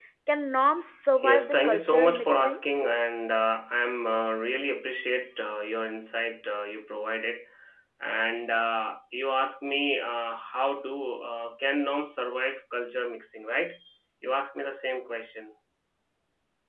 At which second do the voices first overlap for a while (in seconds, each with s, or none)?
1.2 s